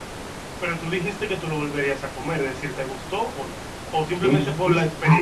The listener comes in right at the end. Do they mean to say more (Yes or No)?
Yes